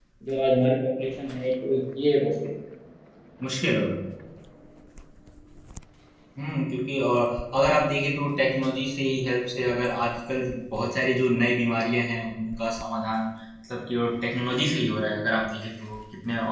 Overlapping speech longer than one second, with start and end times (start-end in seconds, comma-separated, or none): none